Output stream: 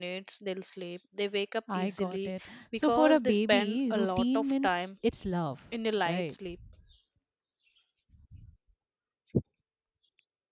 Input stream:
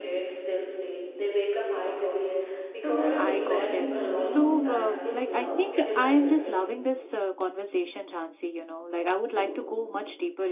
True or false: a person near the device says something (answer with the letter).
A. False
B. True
B